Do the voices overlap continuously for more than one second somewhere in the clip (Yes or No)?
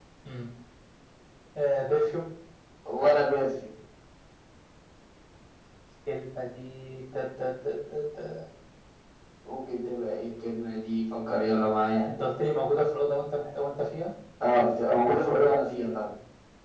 No